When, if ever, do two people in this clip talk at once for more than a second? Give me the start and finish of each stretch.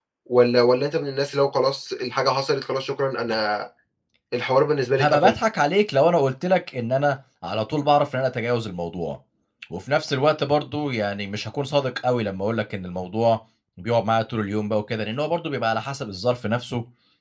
none

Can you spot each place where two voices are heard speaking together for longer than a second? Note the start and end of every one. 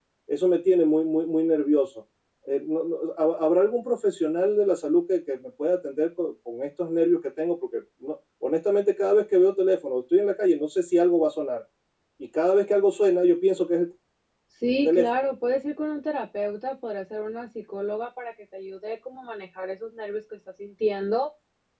none

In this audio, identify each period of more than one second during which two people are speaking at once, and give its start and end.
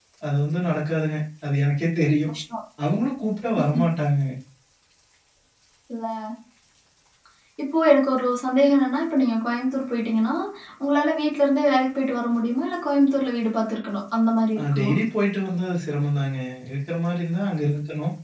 none

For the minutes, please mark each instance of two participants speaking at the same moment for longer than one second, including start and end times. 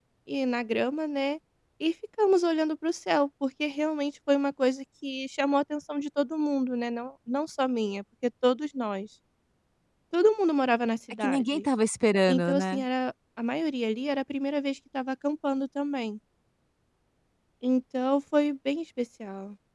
none

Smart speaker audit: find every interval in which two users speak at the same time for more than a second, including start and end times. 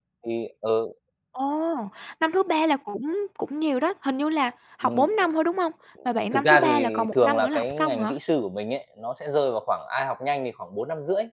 6.3-8.1

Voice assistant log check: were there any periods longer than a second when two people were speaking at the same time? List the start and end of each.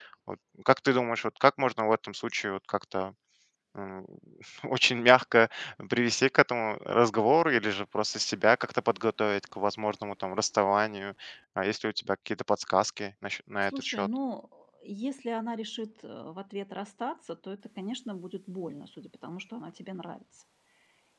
none

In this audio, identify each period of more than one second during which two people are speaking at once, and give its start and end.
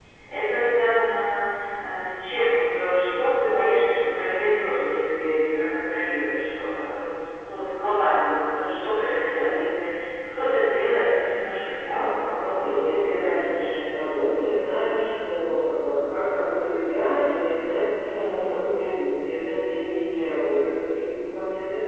11.8-13.7

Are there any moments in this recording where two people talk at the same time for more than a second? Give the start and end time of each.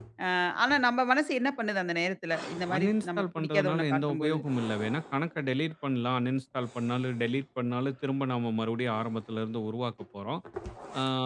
2.8-4.4

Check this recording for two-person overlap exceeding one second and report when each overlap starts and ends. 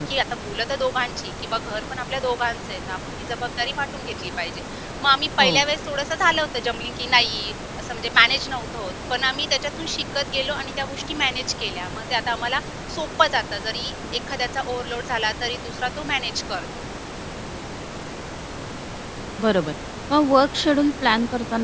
none

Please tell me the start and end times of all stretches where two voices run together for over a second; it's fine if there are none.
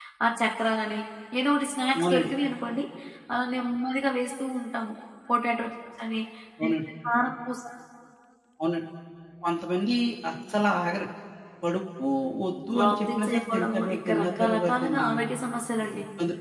12.8-15.1

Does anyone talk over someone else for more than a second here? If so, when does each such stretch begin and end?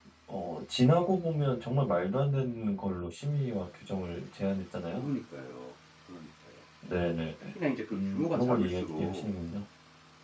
7.9-9.3

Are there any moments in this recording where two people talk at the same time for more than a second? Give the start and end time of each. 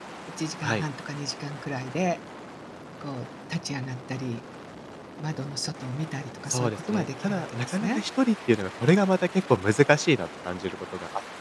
6.5-8.0

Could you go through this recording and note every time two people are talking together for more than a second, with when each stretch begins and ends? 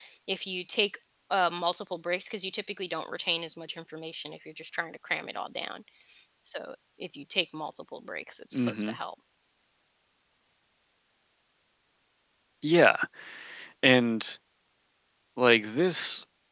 none

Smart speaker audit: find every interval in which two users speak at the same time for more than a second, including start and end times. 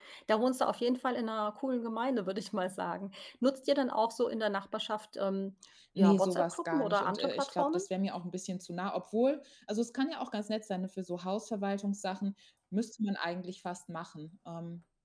6.0-7.8

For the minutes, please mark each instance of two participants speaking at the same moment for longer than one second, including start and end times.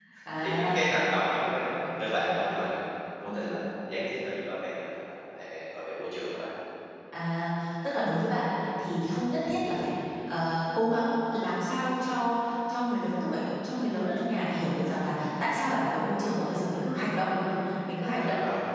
none

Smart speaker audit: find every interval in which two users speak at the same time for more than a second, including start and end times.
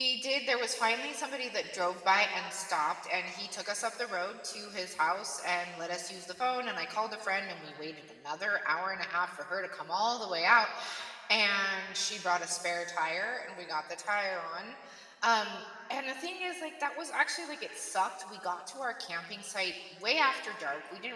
none

